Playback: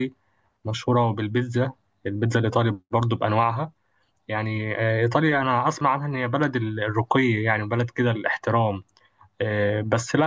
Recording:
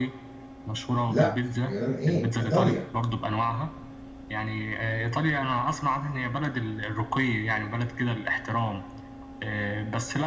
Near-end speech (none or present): present